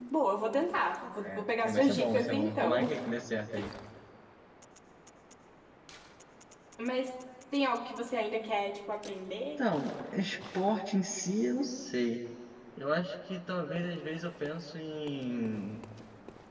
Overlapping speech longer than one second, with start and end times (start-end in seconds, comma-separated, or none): 1.2-2.9